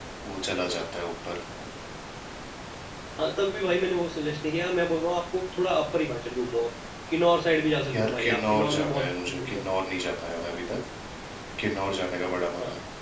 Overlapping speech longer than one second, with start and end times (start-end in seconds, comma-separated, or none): 7.9-9.6